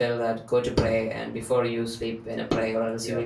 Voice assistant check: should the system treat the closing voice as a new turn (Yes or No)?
No